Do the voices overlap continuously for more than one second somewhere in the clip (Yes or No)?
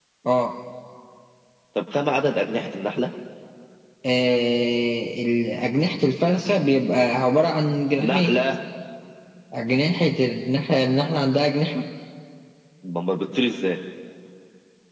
No